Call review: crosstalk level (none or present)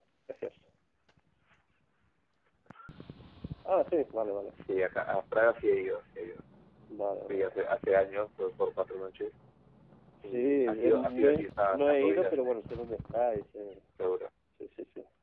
present